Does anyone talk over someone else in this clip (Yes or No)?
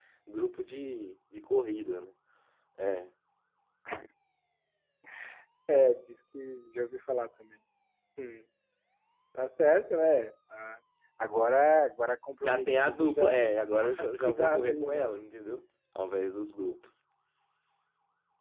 Yes